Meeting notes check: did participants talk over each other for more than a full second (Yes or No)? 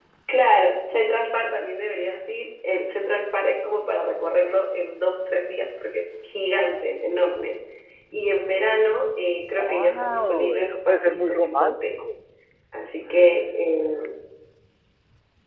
Yes